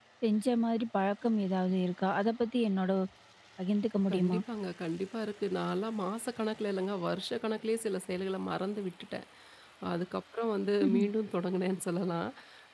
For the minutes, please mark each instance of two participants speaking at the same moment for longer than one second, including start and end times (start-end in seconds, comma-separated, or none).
none